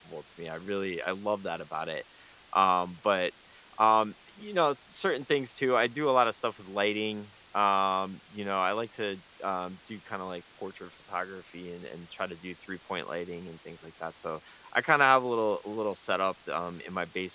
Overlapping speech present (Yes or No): No